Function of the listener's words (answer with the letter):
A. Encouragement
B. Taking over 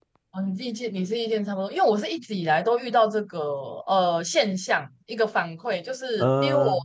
A